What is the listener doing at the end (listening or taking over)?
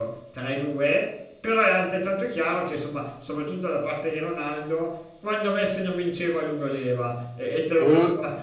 listening